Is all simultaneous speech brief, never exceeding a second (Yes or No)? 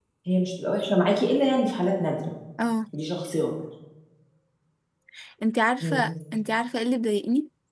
Yes